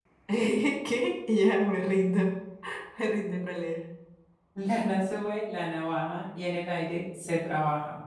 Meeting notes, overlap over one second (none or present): none